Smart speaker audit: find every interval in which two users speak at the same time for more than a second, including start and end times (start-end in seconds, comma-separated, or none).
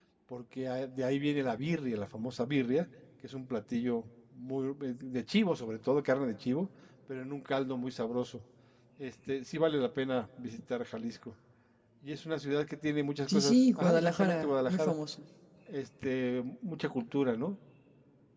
13.3-14.9